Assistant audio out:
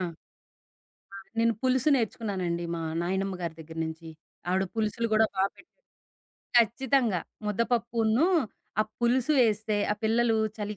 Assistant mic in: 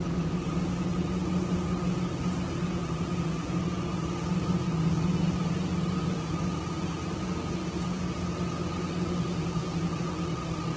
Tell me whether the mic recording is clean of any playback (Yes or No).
Yes